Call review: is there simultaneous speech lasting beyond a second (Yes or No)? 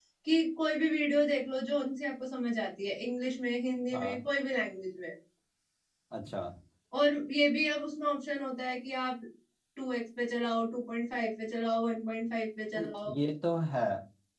No